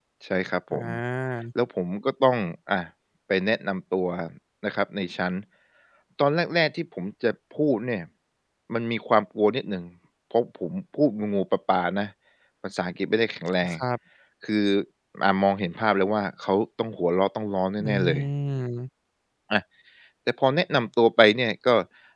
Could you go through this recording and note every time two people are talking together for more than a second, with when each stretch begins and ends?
none

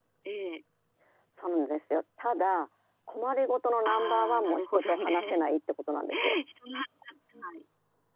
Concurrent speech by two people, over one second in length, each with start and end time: 3.9-5.2

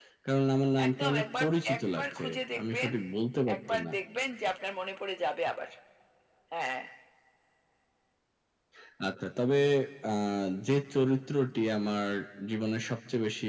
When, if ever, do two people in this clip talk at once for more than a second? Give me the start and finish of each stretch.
0.9-2.2

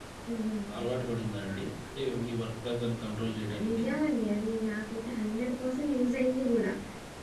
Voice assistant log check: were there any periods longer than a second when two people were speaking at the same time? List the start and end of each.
none

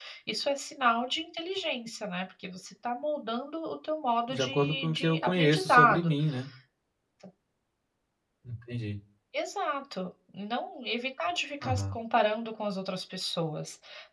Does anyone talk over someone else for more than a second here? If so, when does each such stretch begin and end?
4.3-6.1

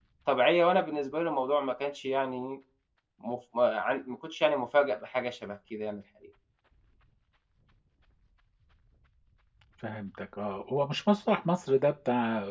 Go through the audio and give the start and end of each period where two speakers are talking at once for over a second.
none

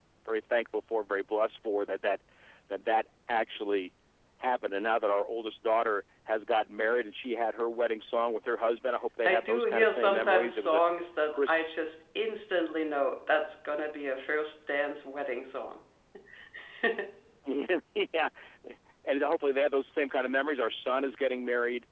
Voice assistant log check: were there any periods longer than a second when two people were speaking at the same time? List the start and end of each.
9.2-10.8

